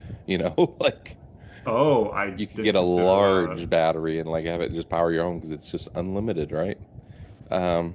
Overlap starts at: 2 s

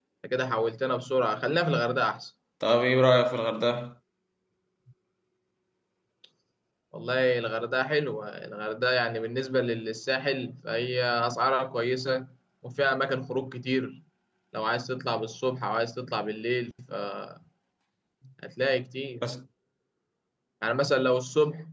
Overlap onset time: none

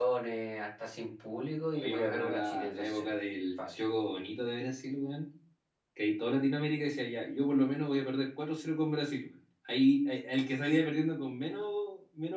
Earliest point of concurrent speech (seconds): 2 s

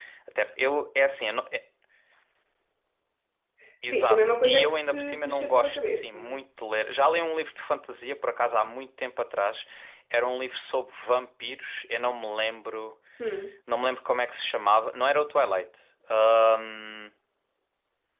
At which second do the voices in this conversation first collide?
4 s

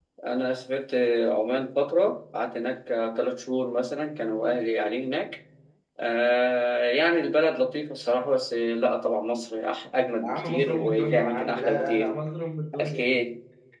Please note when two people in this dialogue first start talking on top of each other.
10 s

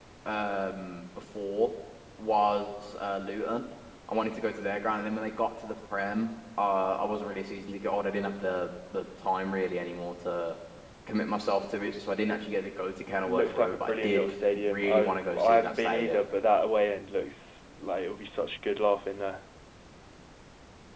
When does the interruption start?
13 s

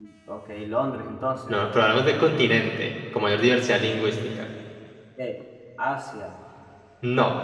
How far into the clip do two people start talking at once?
none

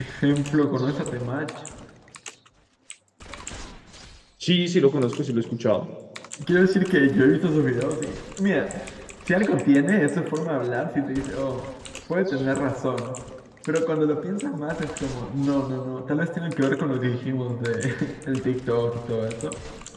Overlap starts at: none

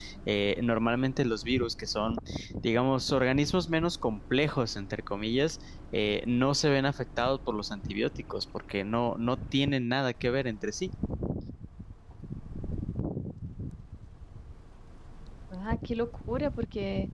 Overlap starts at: none

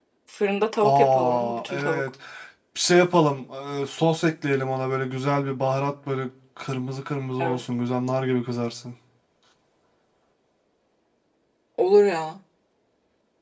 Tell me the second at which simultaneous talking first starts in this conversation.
1 s

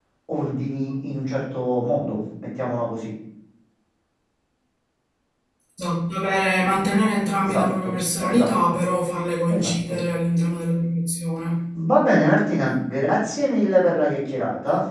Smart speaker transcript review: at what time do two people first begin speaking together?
7 s

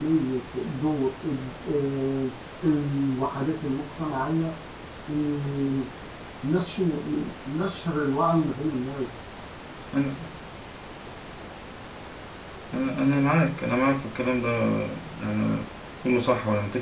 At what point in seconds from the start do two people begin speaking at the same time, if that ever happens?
none

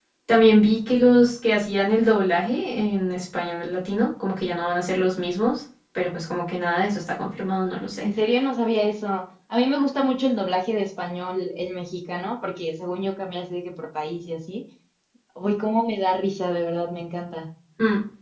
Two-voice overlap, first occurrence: none

